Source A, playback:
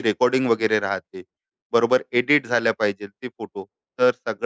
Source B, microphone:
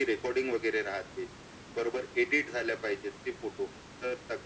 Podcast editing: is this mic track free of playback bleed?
No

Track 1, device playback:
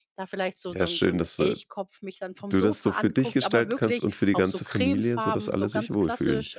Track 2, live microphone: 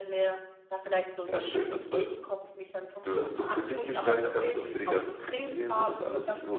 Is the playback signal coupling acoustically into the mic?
Yes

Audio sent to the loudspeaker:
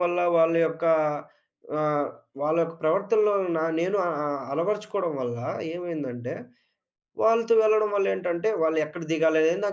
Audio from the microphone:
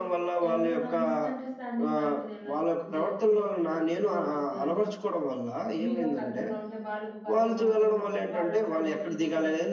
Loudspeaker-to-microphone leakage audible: Yes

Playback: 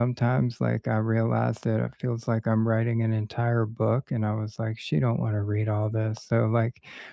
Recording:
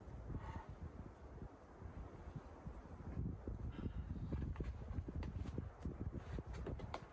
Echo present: No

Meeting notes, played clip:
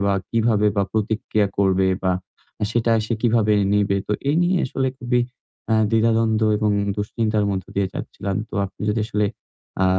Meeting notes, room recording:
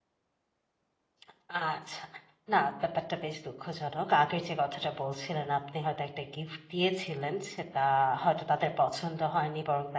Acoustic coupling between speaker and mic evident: No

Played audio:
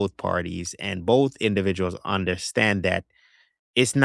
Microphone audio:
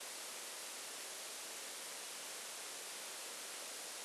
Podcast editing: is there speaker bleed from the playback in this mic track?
No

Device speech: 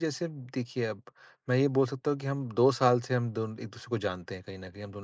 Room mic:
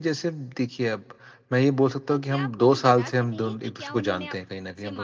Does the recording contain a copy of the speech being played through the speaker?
Yes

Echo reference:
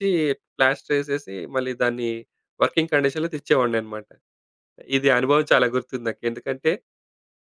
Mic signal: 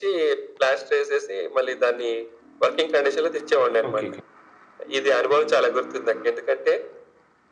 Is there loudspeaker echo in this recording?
Yes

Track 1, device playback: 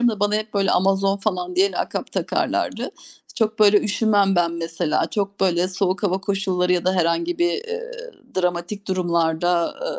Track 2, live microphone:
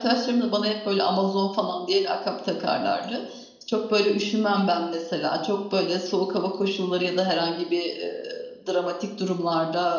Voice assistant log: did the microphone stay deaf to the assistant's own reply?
No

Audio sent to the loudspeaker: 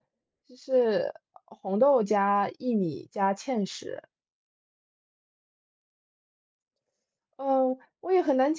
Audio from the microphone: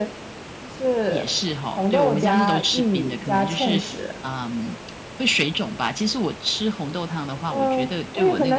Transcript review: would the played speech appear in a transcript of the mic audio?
Yes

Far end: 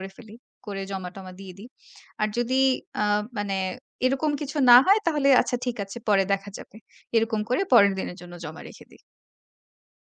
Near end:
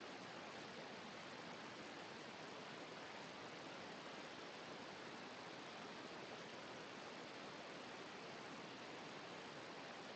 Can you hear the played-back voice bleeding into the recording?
No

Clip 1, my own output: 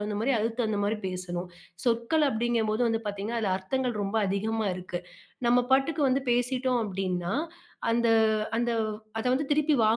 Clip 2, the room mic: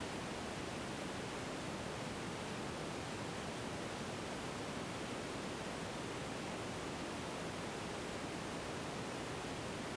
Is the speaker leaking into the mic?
No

